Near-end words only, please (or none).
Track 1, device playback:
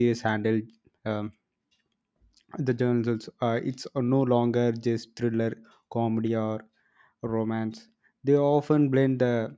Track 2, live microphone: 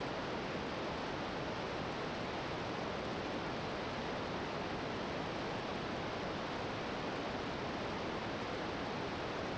none